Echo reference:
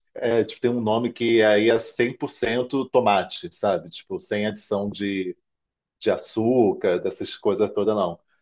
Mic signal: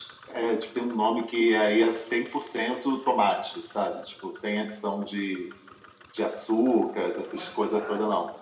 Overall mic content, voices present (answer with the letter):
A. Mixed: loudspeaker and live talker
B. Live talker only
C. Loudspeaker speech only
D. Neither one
A